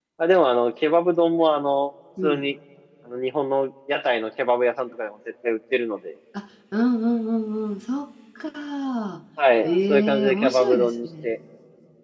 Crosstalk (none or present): present